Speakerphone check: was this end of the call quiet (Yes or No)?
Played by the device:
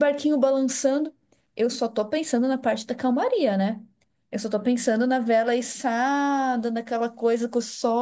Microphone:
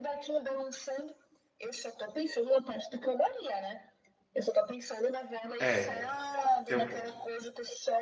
No